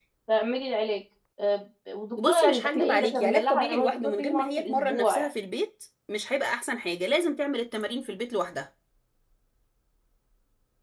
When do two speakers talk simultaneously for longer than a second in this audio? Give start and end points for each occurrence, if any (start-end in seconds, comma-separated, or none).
2.2-5.3